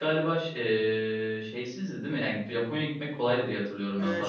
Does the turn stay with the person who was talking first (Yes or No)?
No